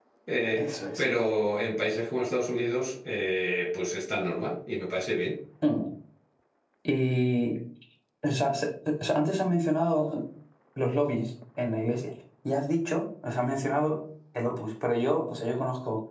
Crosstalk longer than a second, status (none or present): none